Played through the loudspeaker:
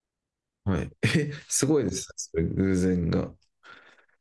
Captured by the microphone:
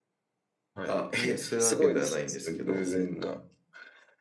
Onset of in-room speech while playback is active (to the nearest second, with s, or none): 1 s